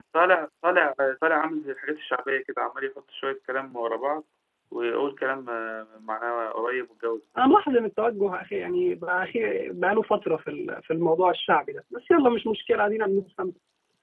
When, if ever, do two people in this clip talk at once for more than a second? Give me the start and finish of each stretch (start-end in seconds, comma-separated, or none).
none